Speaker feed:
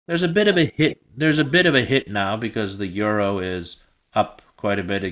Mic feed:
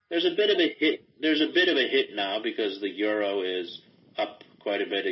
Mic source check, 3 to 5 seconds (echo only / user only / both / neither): echo only